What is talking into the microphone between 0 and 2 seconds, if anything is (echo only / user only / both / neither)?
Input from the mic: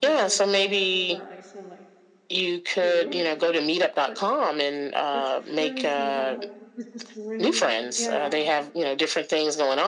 both